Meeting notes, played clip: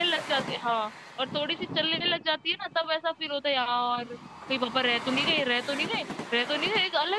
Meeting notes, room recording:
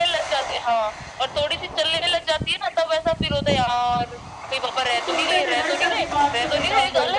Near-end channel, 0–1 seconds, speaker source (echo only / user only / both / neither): echo only